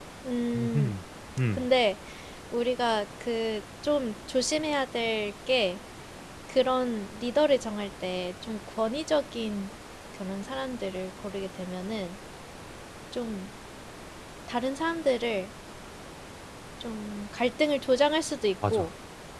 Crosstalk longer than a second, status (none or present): none